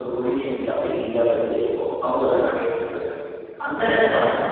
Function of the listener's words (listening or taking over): listening